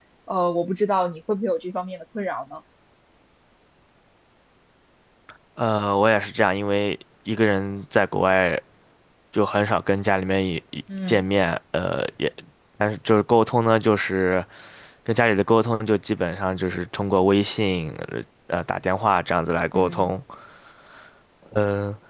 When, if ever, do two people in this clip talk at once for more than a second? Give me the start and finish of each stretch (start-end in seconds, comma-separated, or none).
none